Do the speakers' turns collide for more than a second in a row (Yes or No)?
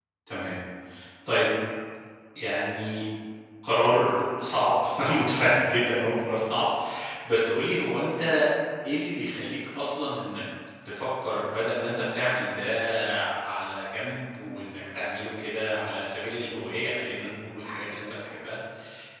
No